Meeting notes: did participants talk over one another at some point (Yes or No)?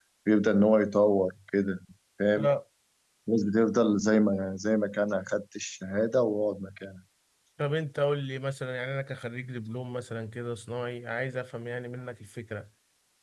No